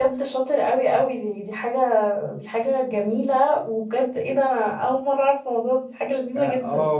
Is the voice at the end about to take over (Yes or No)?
Yes